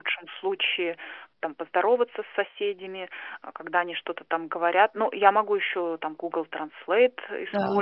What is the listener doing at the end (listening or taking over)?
listening